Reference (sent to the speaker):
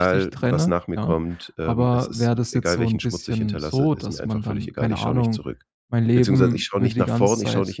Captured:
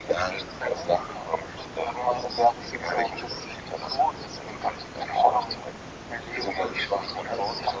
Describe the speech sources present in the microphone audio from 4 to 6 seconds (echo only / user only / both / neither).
echo only